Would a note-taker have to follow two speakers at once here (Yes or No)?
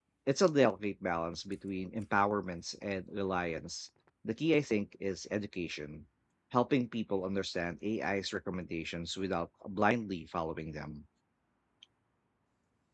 No